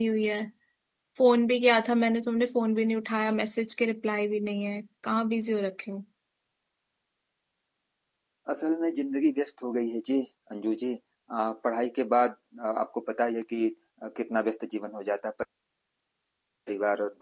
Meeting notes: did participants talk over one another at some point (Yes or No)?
No